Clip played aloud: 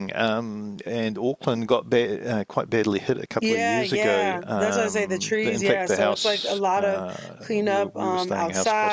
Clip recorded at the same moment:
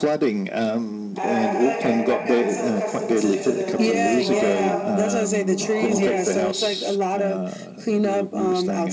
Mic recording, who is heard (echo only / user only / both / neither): both